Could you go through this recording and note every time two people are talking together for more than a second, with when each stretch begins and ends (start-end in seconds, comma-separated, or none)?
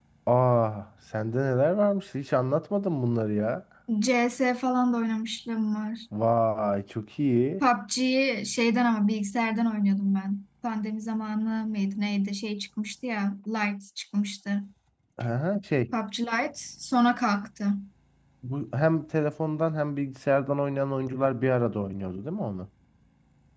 none